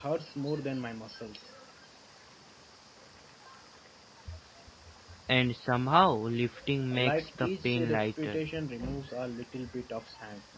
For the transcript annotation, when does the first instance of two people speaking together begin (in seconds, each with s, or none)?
6.9 s